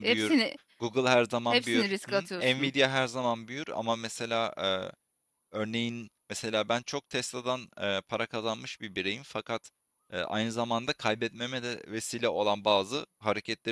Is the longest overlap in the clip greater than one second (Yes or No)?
Yes